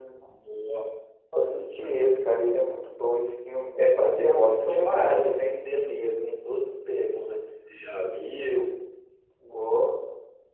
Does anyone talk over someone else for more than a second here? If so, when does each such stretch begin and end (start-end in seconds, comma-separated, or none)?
4.0-5.6